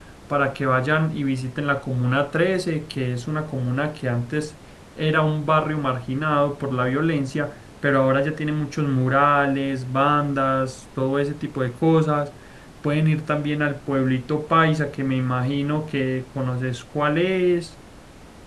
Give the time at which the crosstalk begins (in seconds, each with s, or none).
none